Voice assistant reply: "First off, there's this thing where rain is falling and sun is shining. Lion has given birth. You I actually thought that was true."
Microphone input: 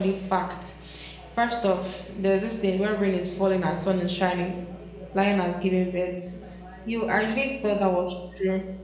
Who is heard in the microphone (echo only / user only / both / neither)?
echo only